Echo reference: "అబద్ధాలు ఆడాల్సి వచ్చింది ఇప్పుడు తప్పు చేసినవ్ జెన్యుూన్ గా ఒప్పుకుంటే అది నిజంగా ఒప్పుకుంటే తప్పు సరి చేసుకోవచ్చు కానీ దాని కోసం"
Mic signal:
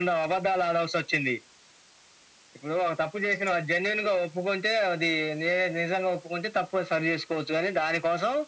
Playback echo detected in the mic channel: Yes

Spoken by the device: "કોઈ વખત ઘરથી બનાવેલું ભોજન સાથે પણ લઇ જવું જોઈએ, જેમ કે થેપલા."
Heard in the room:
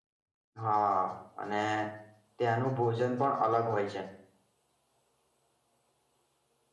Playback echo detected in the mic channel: No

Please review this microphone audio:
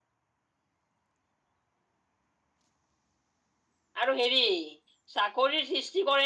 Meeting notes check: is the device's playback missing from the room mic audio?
Yes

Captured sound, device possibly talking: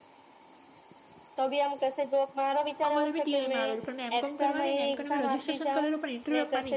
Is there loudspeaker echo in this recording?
Yes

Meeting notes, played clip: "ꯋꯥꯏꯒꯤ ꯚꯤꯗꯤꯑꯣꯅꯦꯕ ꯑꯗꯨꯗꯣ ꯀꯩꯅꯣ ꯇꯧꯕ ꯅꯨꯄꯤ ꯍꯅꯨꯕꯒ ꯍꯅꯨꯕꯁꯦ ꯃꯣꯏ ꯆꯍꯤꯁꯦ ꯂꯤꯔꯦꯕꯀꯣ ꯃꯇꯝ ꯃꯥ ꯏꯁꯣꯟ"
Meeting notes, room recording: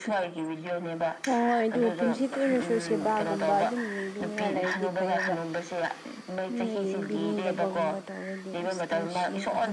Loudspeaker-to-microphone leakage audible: Yes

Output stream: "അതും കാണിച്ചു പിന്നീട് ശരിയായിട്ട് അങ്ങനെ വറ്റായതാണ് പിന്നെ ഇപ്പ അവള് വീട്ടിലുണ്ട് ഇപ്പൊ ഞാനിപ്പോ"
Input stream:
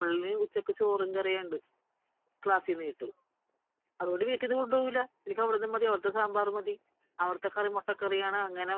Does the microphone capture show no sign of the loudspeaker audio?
Yes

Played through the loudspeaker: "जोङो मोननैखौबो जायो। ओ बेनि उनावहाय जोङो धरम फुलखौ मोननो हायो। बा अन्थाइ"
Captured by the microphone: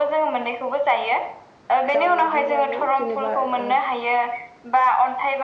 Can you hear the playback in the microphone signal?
Yes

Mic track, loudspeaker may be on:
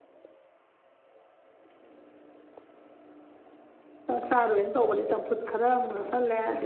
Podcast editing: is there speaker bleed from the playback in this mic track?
No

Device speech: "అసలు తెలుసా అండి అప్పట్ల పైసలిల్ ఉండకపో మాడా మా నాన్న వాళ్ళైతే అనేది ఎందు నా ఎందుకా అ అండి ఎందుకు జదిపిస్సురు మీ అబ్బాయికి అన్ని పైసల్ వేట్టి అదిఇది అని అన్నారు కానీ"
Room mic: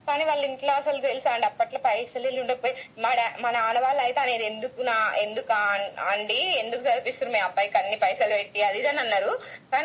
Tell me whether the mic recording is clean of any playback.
No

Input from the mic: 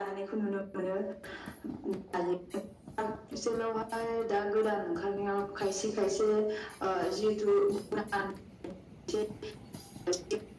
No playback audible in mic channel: No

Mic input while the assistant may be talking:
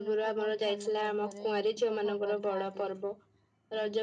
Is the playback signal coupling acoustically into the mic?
Yes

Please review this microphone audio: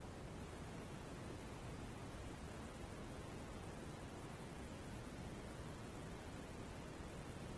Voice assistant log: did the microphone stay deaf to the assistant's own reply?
Yes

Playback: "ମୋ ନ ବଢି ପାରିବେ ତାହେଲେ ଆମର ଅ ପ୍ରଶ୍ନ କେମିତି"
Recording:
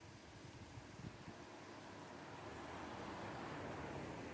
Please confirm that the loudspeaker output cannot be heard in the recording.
Yes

